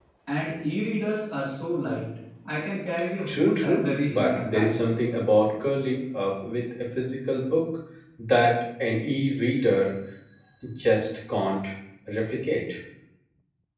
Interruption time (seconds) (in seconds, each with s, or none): 3.3 s